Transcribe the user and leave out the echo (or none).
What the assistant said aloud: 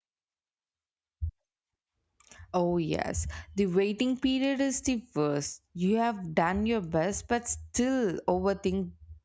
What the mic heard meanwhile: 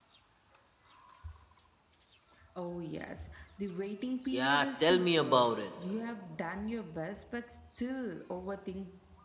Yeah, tell me about it.